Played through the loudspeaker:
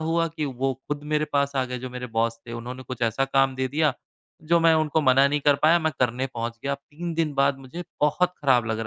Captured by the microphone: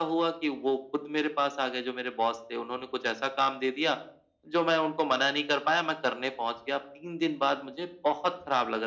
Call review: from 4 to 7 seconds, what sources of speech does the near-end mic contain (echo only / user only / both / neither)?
echo only